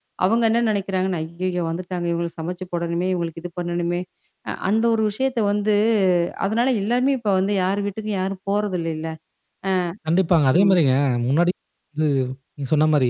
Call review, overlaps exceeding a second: none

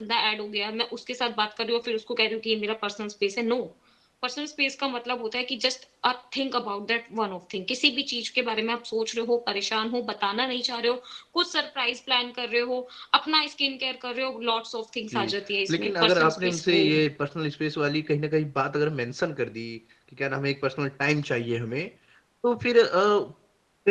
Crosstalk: present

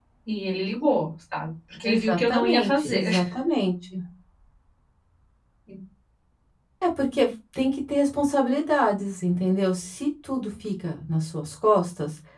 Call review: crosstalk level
present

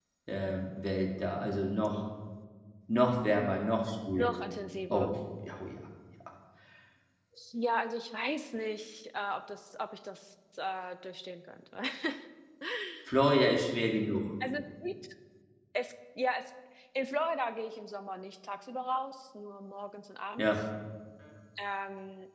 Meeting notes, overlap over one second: none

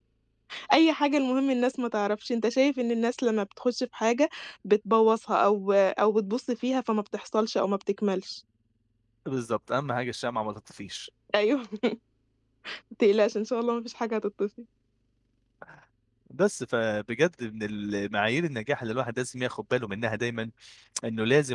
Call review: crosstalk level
none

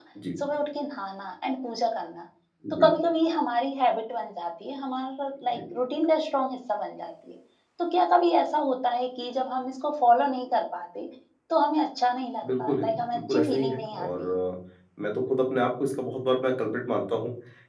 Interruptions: present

